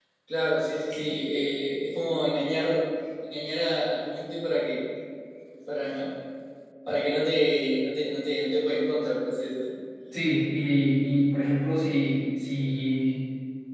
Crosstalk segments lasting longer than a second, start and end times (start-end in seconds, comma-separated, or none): none